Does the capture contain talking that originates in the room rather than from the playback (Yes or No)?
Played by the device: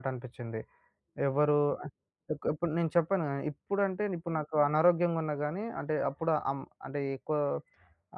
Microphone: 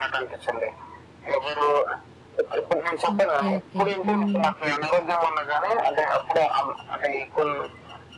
Yes